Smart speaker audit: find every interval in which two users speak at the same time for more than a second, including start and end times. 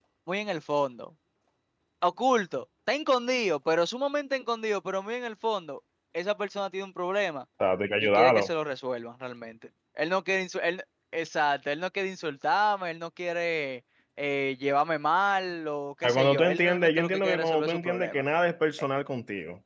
16.0-18.2

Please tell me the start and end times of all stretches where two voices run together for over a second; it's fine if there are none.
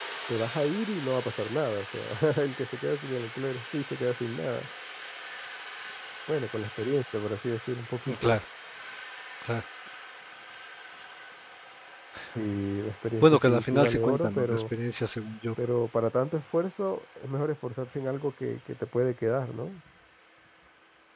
13.2-14.6

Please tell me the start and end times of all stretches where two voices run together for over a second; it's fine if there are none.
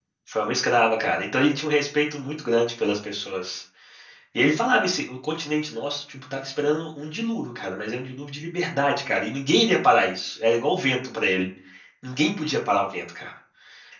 none

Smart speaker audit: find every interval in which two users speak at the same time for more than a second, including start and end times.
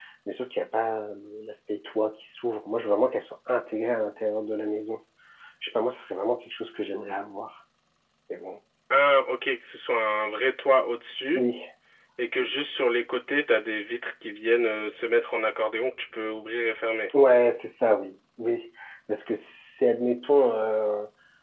none

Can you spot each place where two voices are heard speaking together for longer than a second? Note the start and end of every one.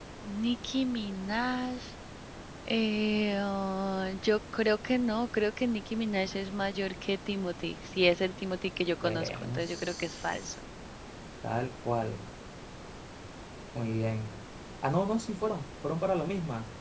9.0-10.6

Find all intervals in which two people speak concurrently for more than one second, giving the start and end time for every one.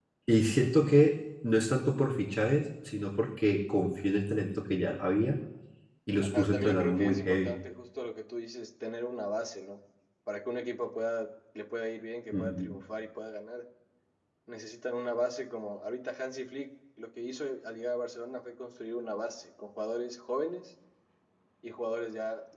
6.2-7.6

